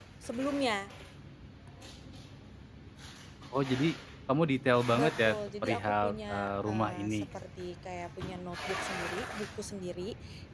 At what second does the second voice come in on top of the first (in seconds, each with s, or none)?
4.9 s